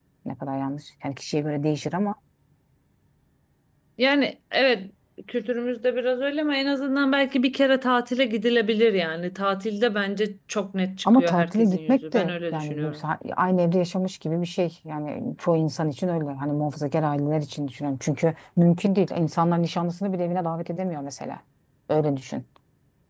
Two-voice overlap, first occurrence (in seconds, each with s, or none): 11.0 s